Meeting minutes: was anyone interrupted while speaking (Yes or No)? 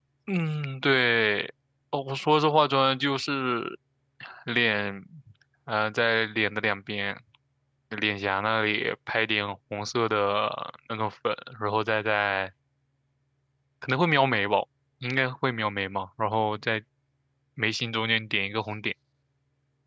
No